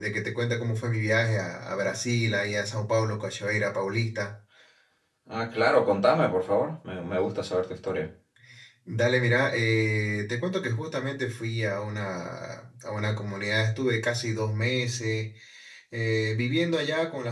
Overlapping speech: No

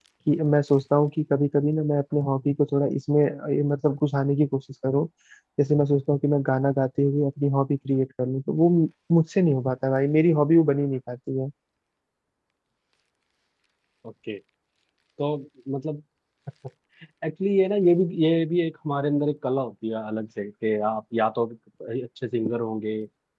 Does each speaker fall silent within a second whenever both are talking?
Yes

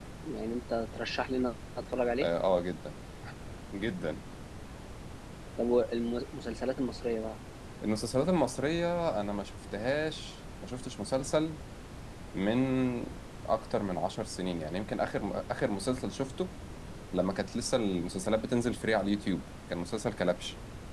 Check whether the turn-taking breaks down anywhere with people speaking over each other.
No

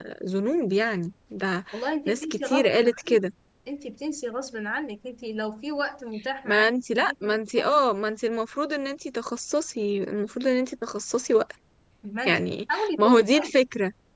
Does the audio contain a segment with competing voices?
Yes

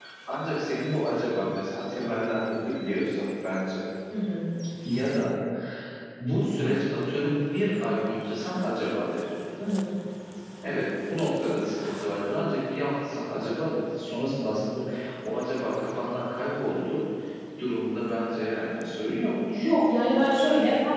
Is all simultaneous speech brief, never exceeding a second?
Yes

